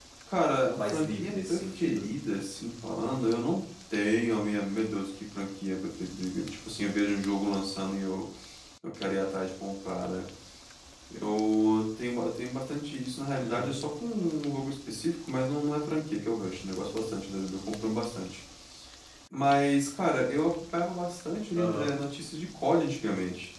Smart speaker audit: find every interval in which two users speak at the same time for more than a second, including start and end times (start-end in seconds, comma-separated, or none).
0.8-2.1